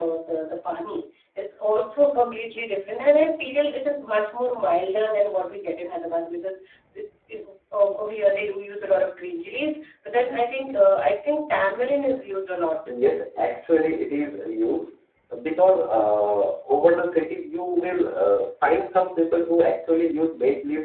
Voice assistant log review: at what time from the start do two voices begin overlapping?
none

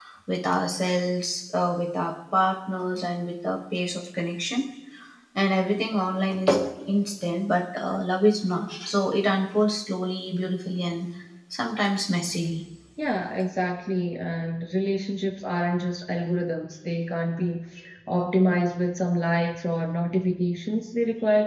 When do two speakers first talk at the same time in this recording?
none

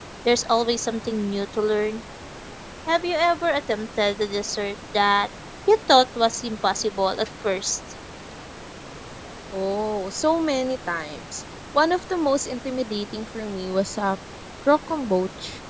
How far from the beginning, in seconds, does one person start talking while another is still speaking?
none

